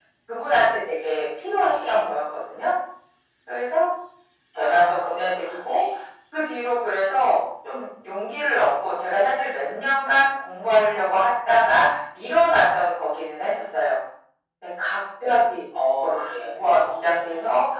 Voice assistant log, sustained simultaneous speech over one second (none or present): present